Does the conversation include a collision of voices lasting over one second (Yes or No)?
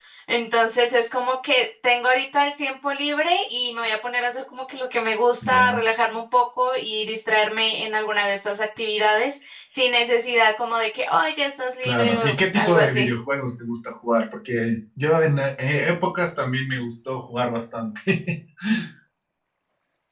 Yes